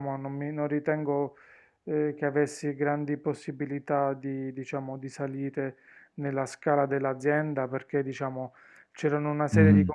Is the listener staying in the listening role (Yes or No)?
Yes